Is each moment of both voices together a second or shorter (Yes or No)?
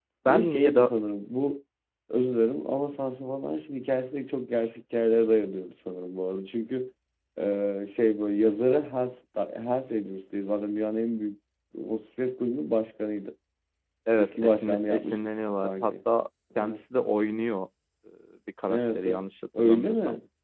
No